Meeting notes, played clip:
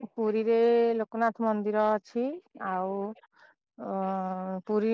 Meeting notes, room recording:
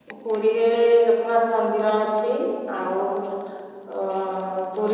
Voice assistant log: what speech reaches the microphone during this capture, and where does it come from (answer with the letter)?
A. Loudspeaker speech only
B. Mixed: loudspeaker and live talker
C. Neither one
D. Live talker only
A